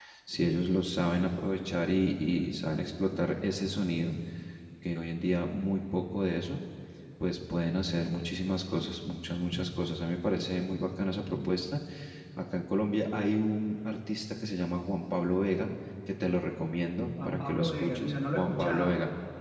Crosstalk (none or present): present